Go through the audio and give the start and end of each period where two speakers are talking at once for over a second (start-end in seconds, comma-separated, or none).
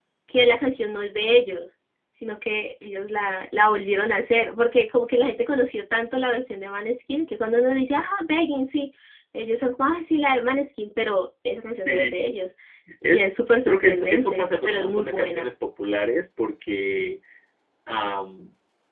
13.7-15.5